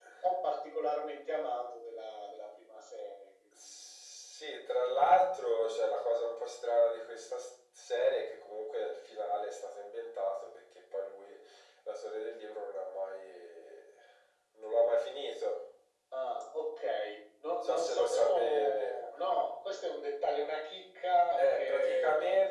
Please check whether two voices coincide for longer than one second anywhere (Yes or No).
Yes